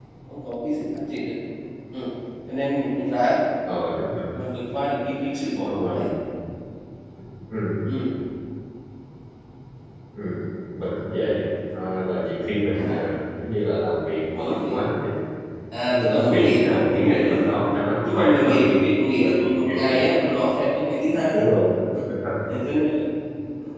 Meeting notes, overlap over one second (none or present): present